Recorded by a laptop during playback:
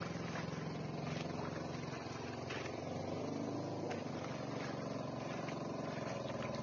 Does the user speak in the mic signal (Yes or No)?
No